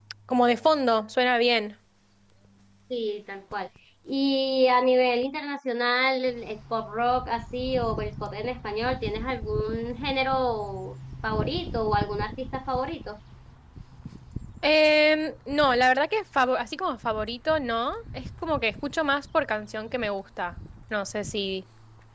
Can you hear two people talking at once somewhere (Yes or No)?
No